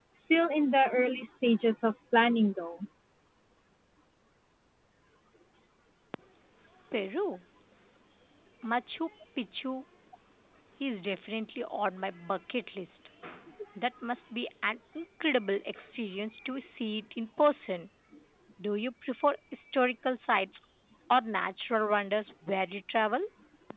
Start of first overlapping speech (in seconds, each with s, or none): none